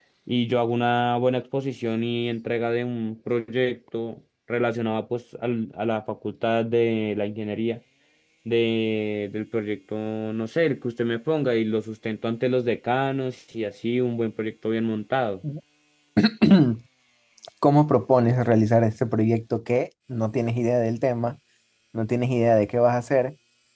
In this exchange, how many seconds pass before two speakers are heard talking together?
none

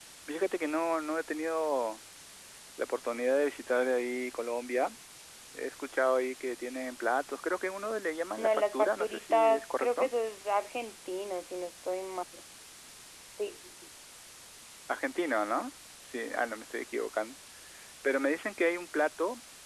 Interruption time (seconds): 8.4 s

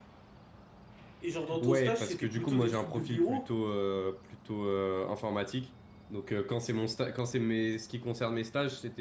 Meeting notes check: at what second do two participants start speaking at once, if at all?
1.6 s

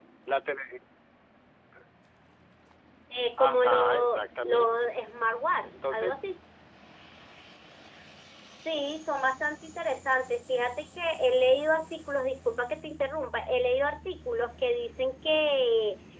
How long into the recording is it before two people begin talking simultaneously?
3.4 s

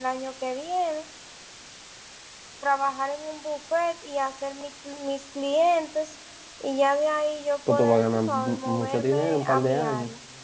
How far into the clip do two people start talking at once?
7.7 s

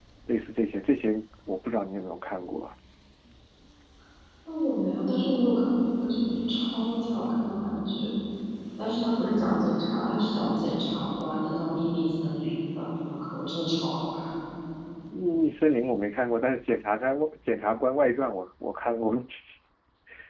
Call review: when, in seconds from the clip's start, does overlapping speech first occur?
none

